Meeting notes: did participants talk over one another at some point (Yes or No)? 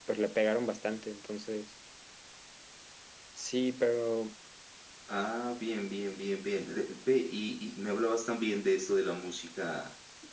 No